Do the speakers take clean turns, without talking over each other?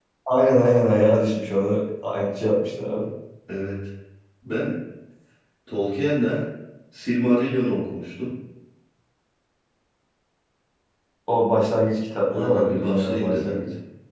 No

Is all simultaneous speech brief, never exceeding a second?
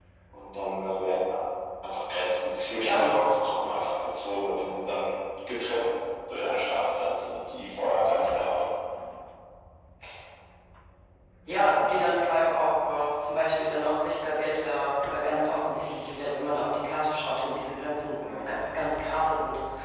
Yes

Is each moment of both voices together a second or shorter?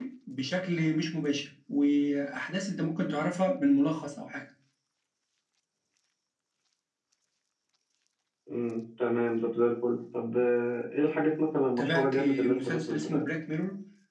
No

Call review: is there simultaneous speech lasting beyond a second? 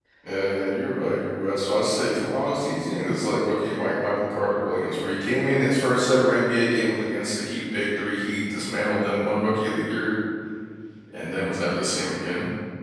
No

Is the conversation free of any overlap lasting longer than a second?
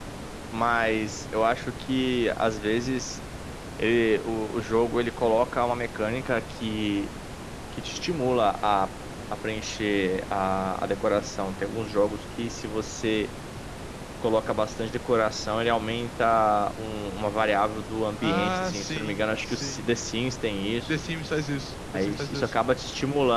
No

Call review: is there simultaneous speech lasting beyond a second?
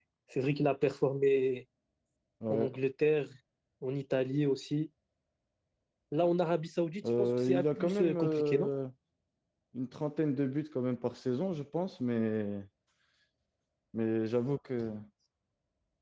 Yes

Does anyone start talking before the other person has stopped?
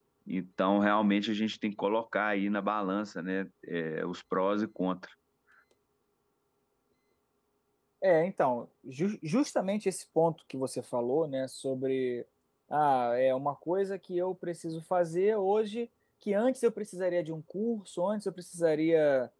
No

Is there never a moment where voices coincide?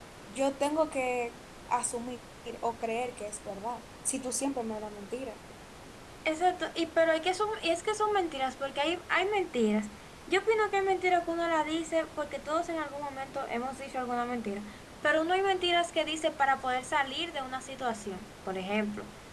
Yes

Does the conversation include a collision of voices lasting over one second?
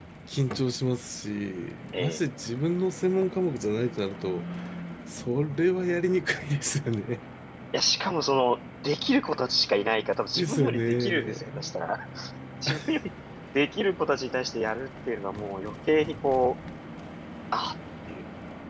Yes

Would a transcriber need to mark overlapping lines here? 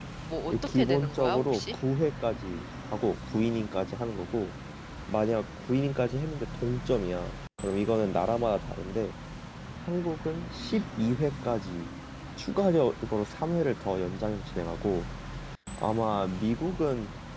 Yes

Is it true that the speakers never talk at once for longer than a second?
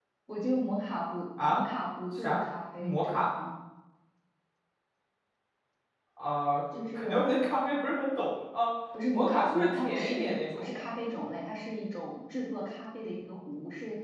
No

